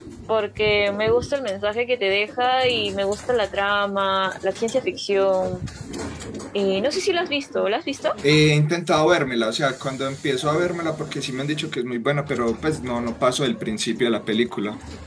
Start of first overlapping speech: none

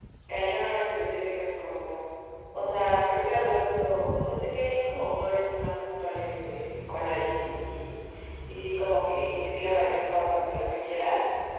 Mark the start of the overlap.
none

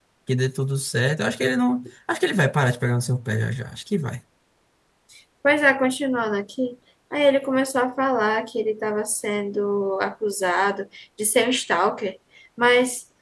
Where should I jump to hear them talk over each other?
none

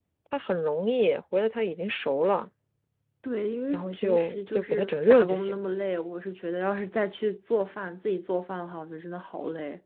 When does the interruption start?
3.7 s

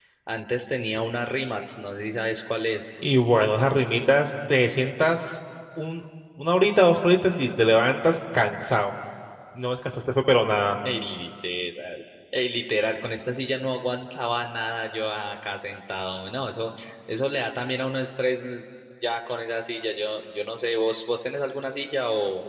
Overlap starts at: none

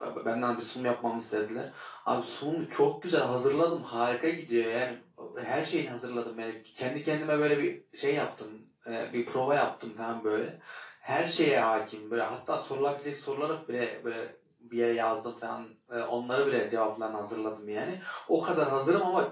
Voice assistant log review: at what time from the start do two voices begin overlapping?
none

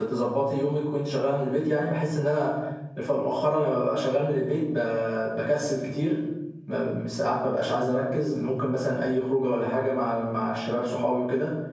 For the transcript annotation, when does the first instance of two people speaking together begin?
none

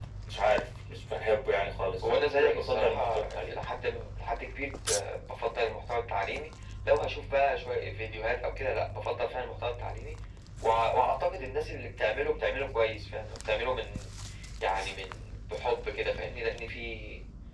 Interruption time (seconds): 2.0 s

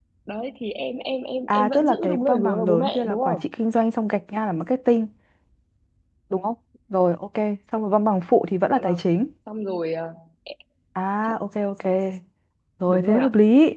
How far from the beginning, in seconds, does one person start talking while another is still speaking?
1.5 s

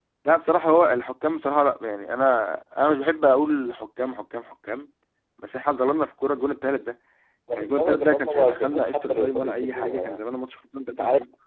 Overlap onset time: 7.5 s

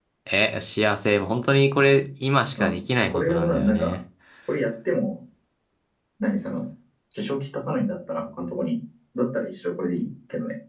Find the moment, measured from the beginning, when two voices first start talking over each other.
2.6 s

